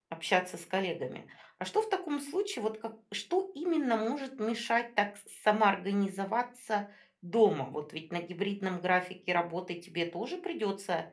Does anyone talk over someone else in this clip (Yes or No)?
No